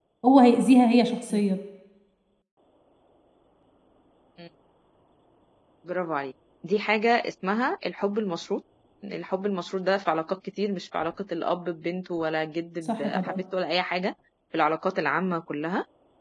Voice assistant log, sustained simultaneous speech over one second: none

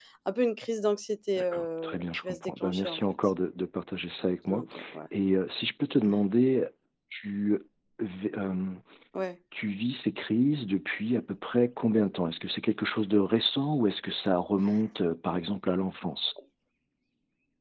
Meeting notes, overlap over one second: present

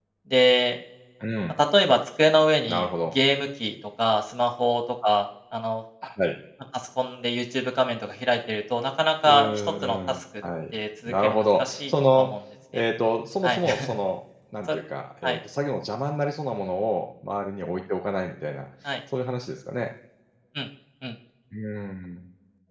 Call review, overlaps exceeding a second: present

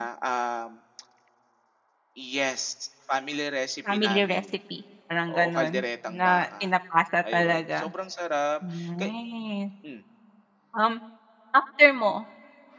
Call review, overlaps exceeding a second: present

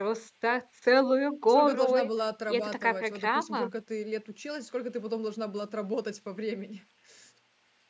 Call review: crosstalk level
present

